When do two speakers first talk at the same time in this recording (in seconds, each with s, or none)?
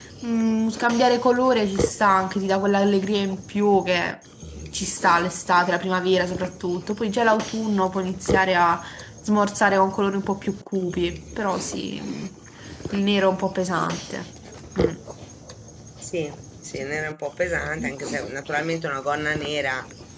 none